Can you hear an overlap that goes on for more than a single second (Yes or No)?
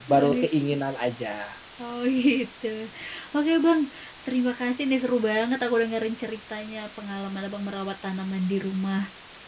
No